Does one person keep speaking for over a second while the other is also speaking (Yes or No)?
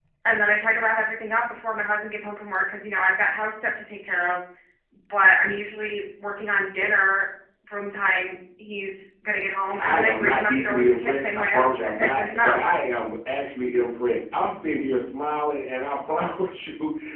Yes